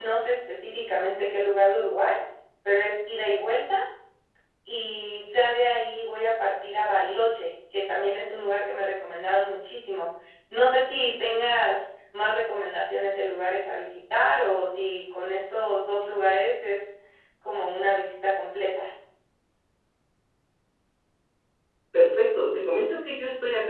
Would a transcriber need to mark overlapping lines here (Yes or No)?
No